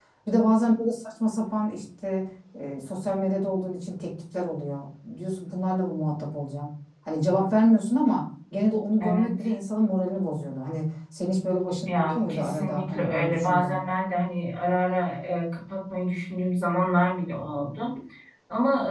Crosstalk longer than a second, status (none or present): present